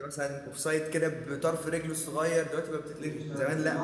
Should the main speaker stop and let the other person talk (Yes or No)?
Yes